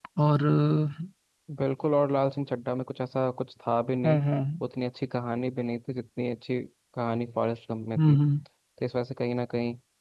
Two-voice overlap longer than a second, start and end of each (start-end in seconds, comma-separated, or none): none